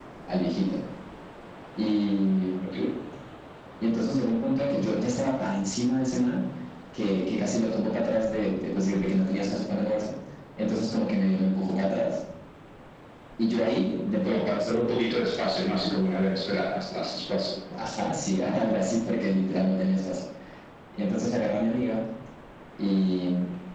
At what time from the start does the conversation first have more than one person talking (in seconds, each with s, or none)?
none